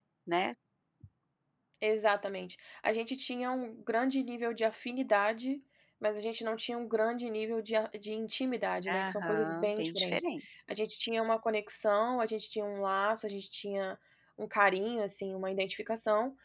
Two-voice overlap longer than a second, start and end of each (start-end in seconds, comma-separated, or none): 8.9-10.3